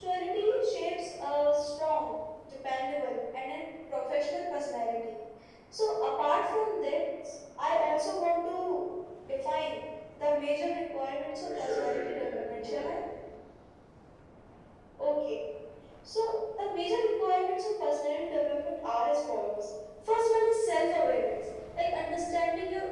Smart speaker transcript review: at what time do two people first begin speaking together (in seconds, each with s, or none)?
11.3 s